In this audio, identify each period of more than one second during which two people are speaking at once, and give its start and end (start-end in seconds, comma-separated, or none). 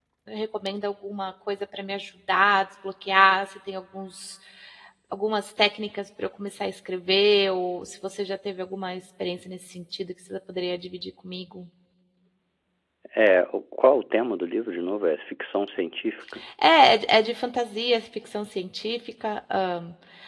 none